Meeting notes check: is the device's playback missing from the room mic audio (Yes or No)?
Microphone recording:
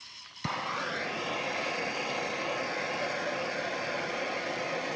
Yes